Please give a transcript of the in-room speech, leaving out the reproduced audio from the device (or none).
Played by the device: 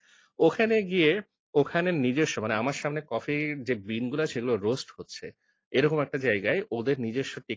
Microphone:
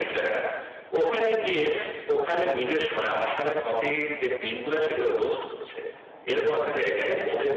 none